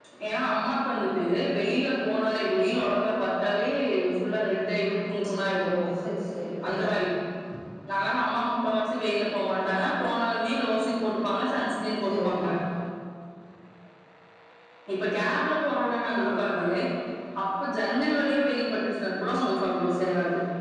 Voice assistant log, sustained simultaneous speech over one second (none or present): none